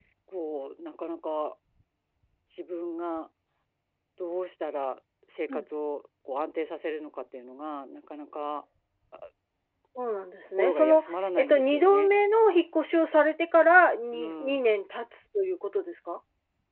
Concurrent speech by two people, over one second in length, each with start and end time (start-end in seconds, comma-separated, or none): 10.6-12.1